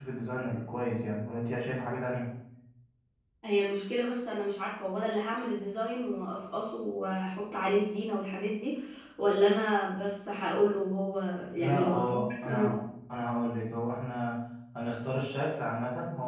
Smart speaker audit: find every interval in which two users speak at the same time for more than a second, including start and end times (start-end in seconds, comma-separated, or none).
11.6-12.8